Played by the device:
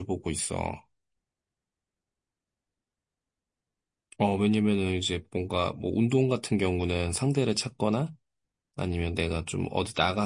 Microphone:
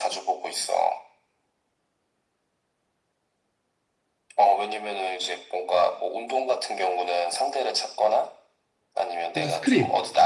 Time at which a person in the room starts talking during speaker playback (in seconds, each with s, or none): 9.4 s